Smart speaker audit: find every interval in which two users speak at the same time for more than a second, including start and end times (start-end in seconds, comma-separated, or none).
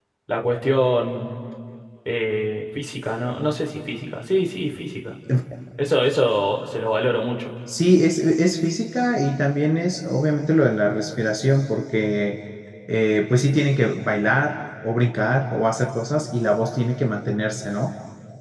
none